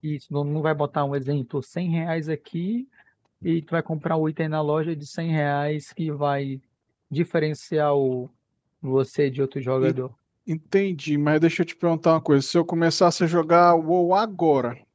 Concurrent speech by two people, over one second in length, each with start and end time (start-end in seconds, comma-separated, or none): none